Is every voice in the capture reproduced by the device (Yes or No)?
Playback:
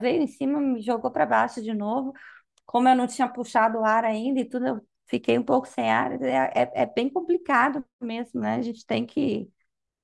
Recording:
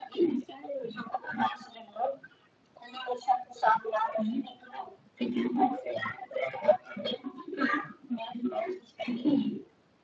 Yes